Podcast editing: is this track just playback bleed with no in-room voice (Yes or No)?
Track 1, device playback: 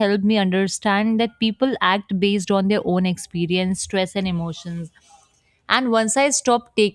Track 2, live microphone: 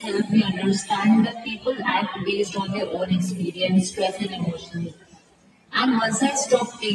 Yes